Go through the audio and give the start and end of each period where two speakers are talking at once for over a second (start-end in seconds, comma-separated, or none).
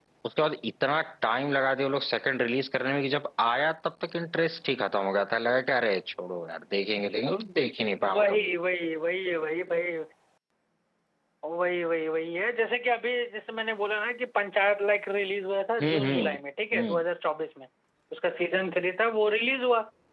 none